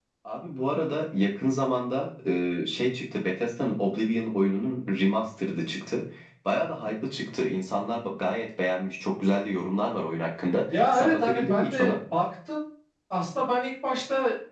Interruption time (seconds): 10.7 s

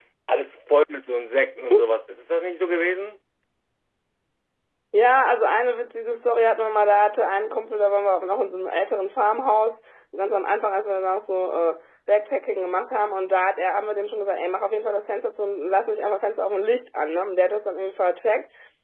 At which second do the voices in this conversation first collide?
none

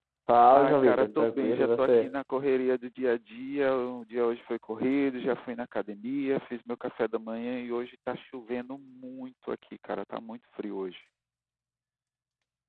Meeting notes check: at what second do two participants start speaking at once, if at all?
0.5 s

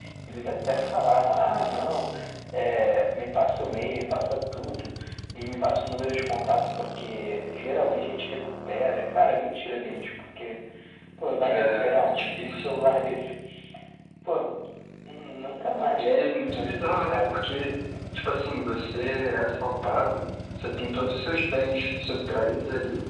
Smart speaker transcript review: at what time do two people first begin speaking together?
11.4 s

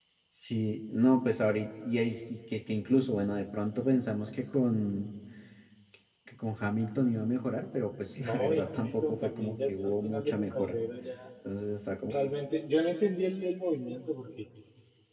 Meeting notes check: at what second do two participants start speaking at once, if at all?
8.2 s

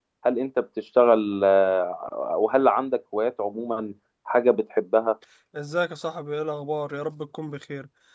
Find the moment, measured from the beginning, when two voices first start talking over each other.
none

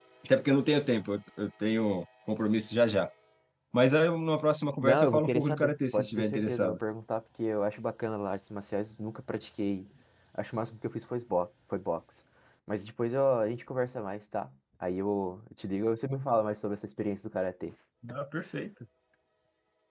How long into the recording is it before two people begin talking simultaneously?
4.8 s

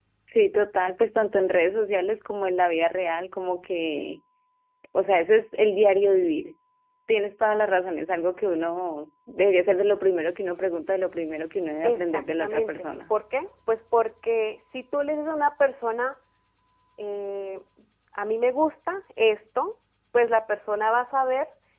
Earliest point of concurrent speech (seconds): 11.8 s

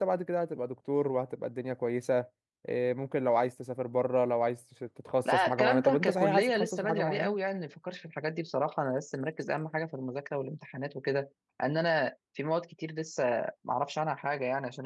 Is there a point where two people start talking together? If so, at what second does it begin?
5.2 s

